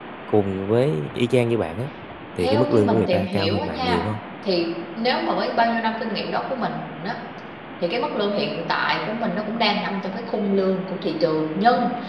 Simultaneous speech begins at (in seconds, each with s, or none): 2.4 s